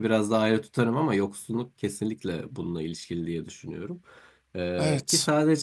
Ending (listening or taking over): listening